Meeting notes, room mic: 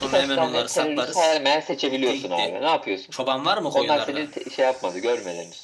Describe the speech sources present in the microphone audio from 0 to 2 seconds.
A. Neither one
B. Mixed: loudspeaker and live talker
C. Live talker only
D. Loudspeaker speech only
B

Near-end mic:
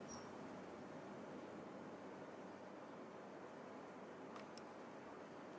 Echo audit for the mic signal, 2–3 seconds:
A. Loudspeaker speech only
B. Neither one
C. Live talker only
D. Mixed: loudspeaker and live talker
B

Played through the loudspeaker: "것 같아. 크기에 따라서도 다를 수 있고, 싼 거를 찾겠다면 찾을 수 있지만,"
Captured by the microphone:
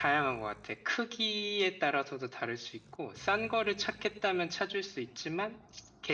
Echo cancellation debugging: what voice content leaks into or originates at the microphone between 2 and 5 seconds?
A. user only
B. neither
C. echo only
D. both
C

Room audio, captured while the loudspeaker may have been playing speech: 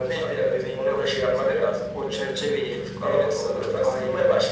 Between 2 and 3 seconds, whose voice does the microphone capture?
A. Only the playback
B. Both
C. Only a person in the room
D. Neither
A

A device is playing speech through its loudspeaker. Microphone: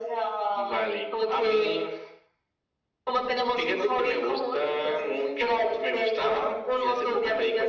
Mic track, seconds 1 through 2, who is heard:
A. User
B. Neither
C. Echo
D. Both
C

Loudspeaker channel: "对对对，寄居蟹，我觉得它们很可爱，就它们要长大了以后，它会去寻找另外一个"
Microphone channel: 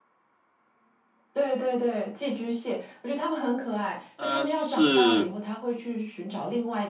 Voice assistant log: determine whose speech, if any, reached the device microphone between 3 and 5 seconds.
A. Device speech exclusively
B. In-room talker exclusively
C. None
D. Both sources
D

